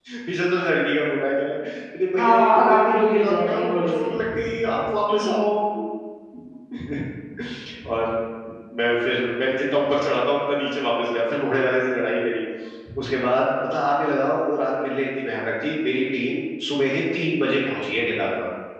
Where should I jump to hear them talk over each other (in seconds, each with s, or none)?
2.2 s